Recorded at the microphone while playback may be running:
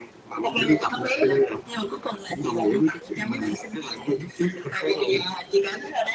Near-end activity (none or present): none